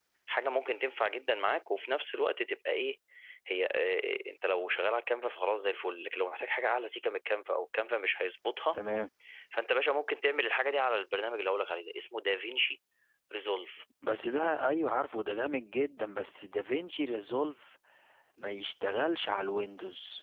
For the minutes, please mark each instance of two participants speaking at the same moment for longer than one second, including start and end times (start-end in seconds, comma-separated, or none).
none